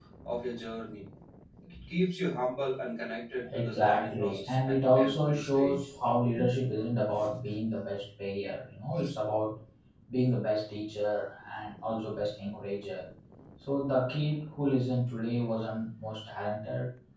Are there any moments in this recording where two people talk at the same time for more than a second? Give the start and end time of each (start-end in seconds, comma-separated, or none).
3.5-5.9